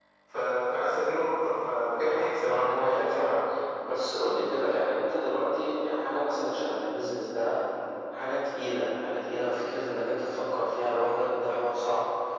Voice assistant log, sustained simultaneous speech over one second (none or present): present